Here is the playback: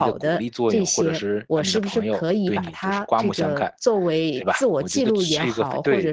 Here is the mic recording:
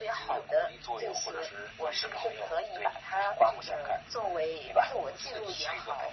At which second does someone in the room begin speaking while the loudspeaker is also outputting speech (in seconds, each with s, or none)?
none